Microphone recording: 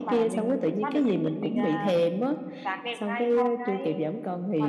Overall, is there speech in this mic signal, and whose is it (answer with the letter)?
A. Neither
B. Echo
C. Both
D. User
B